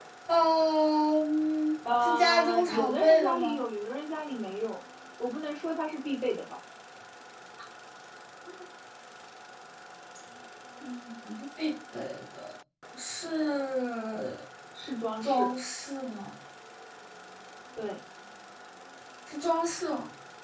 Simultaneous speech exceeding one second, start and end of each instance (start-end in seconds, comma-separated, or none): 2.0-3.6